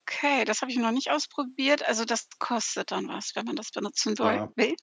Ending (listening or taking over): taking over